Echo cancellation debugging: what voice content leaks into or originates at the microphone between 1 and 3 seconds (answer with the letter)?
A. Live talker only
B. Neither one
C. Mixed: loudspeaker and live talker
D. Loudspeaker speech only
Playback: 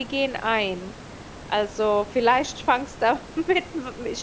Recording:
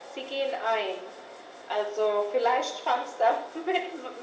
D